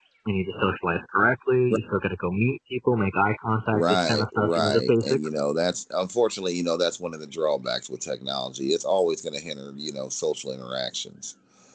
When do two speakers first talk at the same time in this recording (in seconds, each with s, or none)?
3.7 s